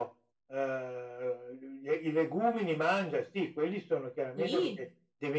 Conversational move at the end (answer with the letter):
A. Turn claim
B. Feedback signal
B